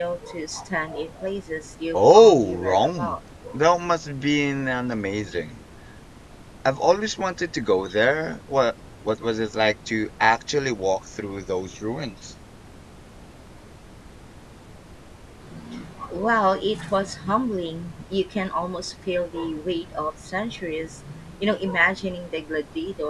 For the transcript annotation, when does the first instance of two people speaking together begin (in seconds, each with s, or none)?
1.9 s